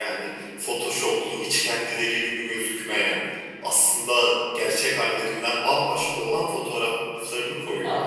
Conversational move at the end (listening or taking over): taking over